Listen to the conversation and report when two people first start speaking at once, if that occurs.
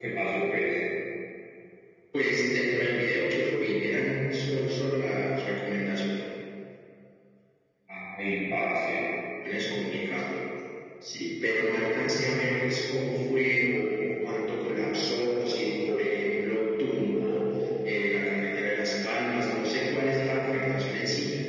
none

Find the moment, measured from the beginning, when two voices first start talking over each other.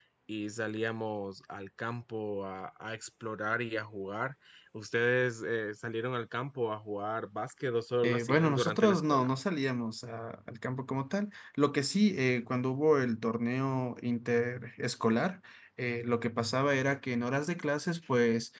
8.0 s

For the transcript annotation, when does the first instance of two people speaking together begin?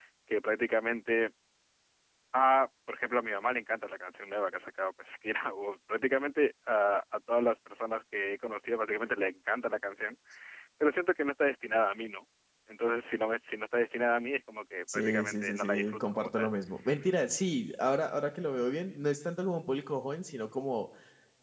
14.9 s

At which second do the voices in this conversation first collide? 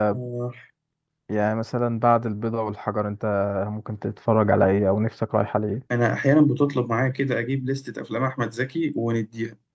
none

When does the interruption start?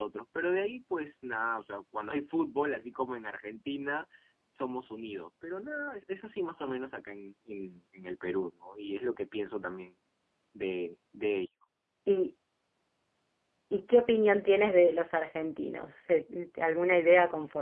none

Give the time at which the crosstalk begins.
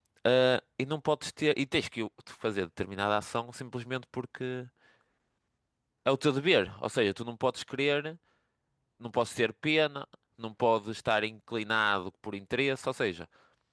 none

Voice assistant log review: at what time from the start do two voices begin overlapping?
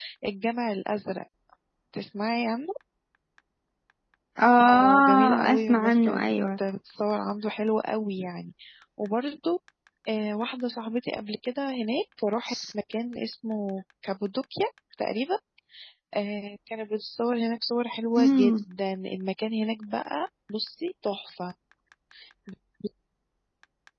4.7 s

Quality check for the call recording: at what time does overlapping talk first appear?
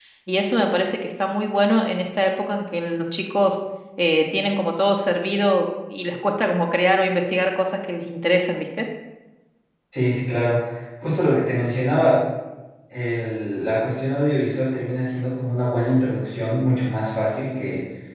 none

